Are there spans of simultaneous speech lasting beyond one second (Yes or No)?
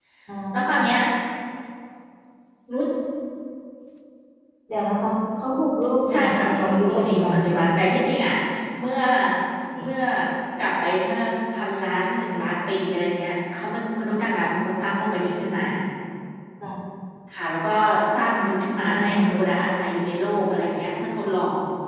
Yes